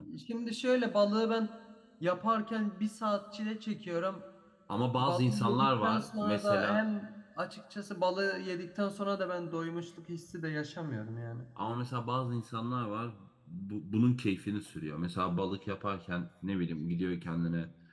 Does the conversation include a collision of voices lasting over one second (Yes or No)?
Yes